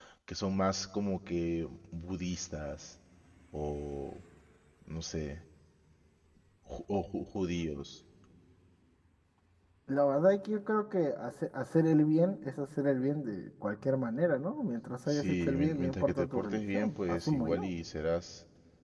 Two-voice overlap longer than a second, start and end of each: 15.1-17.7

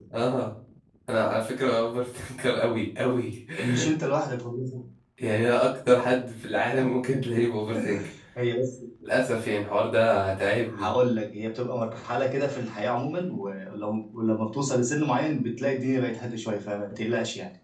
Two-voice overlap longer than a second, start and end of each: none

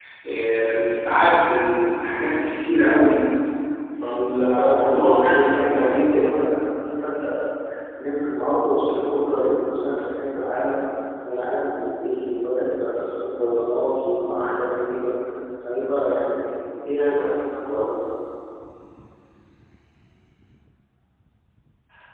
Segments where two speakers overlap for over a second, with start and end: 4.4-6.4

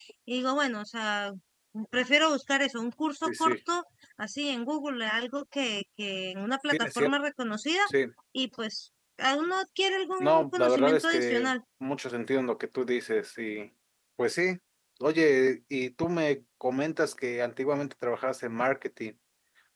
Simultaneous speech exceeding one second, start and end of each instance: 10.2-11.5

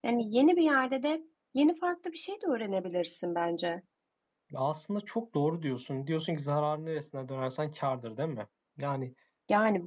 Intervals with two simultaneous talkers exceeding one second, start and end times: none

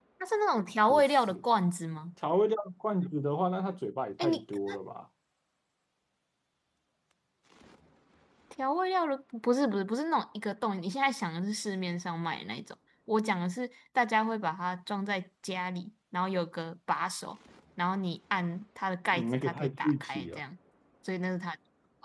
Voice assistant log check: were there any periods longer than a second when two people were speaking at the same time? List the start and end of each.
19.1-20.4

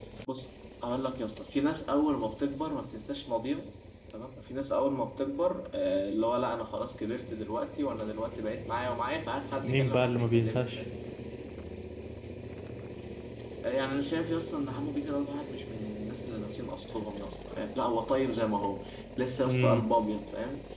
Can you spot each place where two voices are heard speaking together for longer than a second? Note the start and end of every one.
9.6-10.8

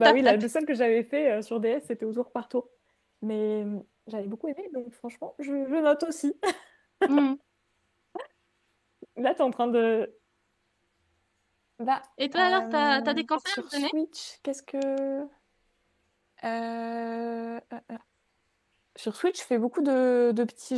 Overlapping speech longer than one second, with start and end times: 12.4-13.8

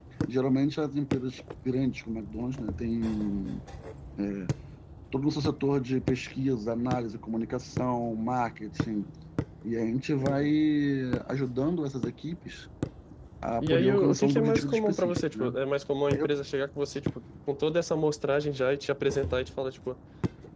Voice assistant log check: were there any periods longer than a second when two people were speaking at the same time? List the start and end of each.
13.6-15.5

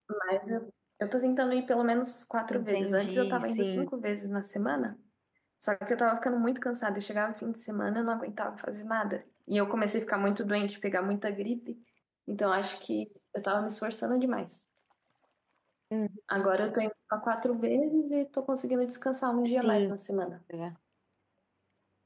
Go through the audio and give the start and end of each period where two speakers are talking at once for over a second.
2.5-3.9

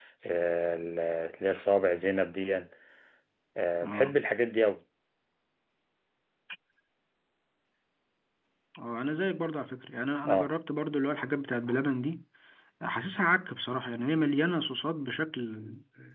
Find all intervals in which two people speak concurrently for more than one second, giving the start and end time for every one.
none

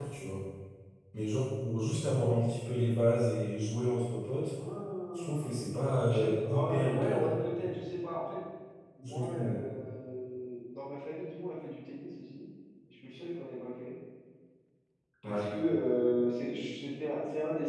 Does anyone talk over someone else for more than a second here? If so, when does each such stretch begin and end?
6.1-7.7

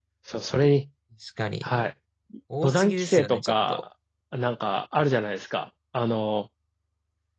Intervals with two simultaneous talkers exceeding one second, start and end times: 2.6-3.8

